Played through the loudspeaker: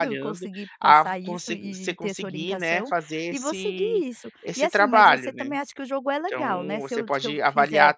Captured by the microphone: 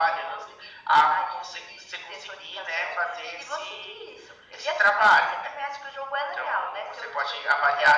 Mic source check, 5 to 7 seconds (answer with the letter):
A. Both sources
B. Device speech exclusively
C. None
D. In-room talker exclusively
B